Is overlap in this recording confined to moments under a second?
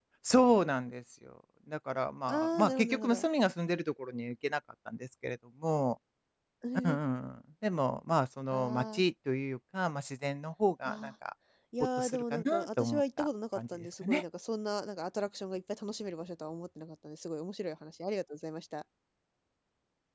No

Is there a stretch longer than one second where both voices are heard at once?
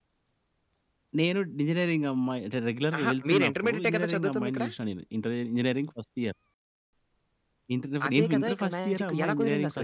Yes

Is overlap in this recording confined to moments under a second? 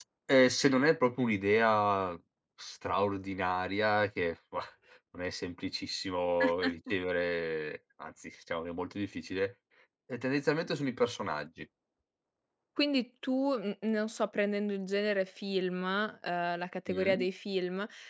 Yes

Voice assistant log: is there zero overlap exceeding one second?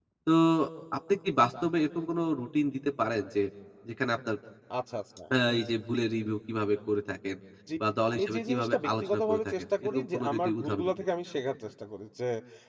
No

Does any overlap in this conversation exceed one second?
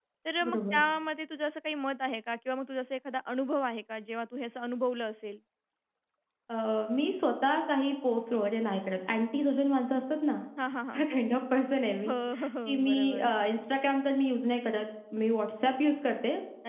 Yes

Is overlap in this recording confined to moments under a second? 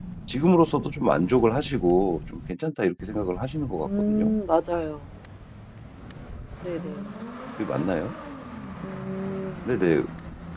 Yes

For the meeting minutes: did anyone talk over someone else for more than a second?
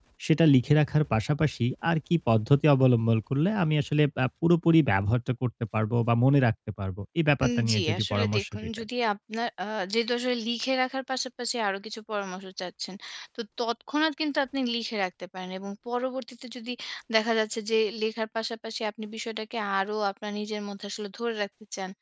Yes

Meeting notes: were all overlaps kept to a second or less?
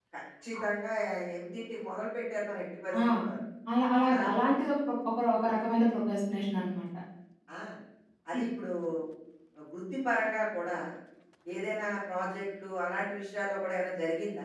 Yes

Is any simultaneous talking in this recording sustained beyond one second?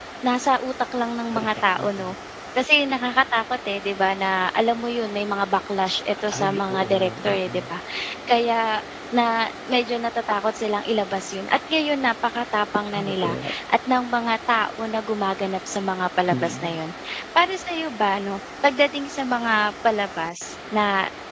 Yes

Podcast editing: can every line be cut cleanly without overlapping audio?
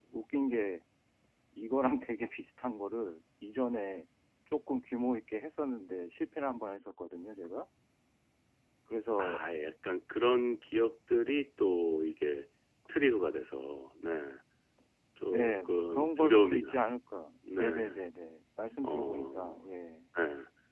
No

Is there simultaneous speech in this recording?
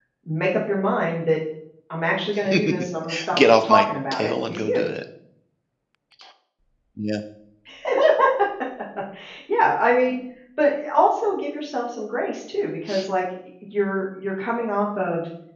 Yes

